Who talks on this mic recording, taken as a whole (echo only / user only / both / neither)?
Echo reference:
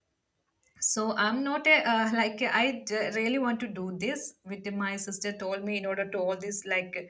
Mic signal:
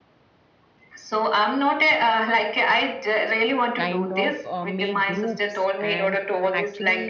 both